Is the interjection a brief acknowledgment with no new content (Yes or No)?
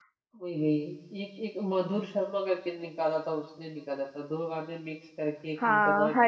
No